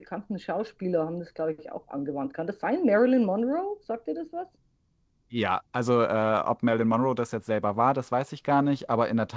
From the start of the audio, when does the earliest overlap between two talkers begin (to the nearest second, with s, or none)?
none